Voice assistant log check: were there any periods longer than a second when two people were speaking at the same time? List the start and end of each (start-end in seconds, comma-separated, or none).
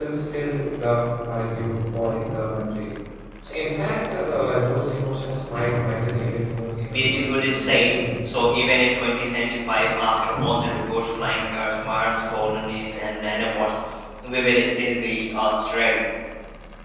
6.9-8.3